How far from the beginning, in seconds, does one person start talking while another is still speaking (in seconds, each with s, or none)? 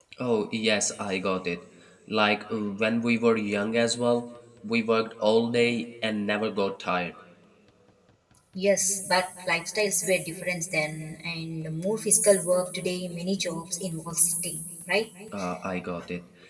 none